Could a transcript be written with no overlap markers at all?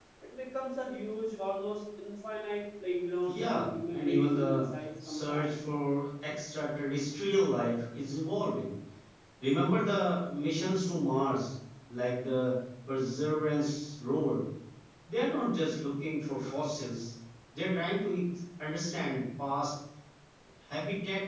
No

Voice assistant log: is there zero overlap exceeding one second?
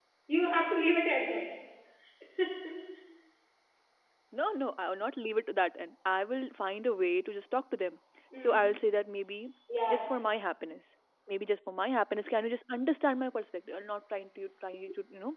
Yes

